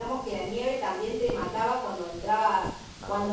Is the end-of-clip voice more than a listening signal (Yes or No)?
No